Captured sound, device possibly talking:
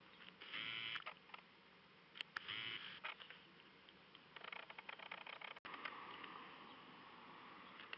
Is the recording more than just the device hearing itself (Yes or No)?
No